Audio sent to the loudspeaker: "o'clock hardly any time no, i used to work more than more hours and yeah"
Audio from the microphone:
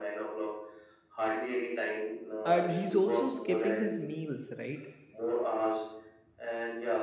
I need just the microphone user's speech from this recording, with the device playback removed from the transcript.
and he's also skipping his meals right

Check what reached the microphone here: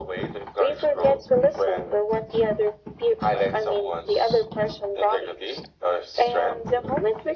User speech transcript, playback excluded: none

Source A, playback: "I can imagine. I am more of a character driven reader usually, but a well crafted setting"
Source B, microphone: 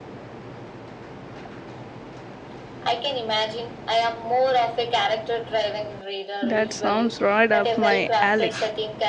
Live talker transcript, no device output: That sounds right up my alley.

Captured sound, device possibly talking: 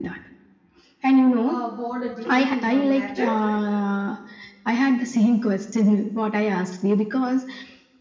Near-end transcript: uh, board a different one later.

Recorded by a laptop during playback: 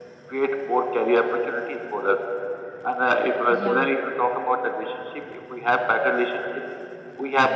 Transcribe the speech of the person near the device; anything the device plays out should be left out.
say Yeah,

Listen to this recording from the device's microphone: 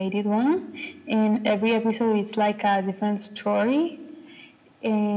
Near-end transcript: none

